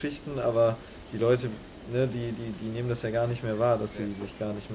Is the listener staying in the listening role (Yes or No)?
Yes